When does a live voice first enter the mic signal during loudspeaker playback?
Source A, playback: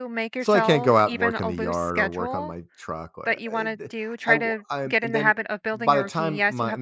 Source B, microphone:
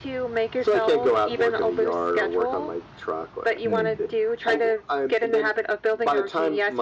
3.6 s

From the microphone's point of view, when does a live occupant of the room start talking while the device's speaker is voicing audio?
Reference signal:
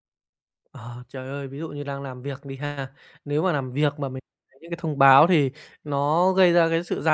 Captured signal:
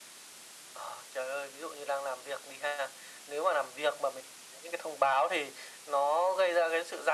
none

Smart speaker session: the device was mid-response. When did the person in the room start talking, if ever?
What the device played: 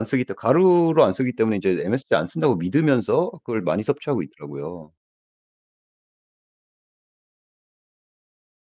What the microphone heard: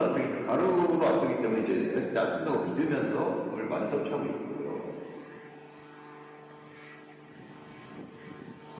none

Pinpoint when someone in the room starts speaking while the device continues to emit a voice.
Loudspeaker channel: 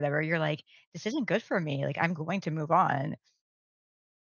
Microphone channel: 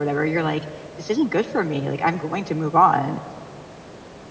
none

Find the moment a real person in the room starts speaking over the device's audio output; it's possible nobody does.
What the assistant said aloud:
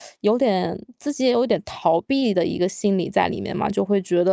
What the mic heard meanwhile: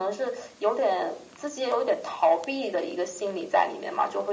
none

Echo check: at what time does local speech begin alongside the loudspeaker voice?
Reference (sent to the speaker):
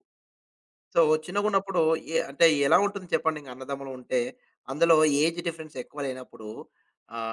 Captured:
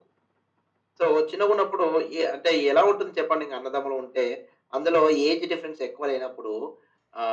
none

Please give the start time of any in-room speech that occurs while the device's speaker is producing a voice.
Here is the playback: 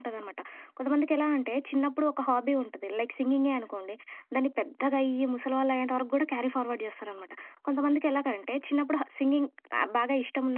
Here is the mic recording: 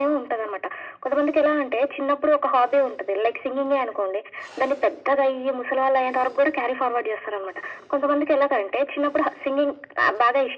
none

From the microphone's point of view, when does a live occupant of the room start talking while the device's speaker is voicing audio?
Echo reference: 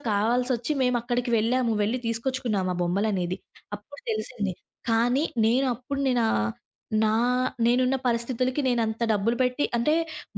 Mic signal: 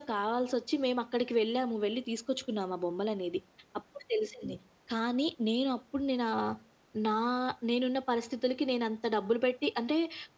none

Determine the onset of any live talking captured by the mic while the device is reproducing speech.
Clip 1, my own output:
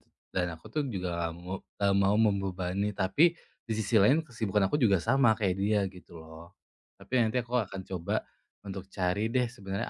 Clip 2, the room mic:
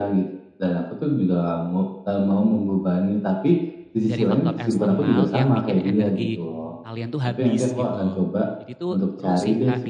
4.1 s

